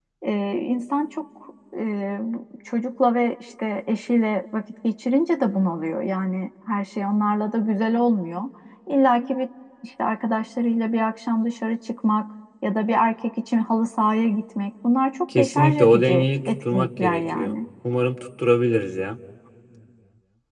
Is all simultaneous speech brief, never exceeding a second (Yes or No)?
No